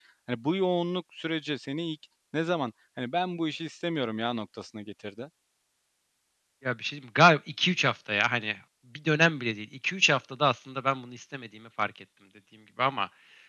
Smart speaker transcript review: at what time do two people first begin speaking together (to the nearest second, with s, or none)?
none